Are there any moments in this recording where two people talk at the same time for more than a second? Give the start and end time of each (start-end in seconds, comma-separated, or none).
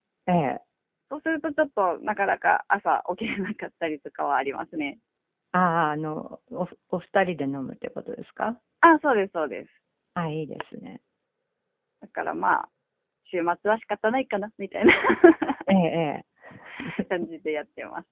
none